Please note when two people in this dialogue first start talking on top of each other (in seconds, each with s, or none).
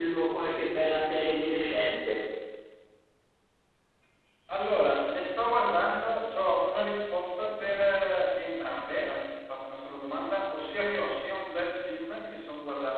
none